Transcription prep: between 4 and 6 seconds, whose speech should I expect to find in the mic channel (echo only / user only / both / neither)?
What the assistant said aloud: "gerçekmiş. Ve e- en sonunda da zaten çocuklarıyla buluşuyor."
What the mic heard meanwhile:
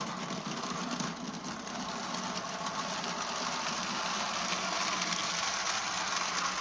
neither